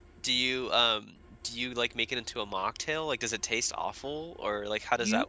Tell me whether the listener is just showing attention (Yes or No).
No